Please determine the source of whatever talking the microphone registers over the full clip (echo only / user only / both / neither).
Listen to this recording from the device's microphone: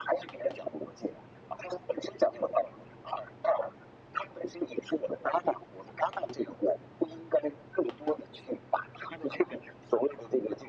echo only